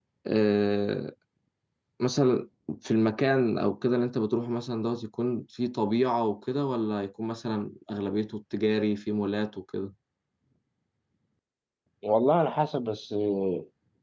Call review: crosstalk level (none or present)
none